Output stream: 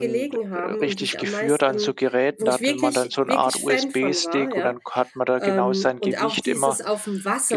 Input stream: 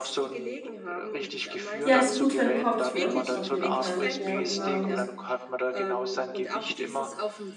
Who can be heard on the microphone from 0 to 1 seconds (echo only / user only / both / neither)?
echo only